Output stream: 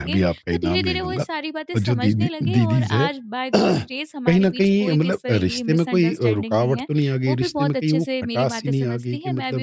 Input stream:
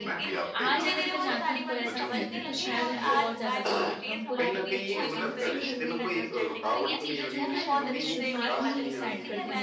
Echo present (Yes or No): Yes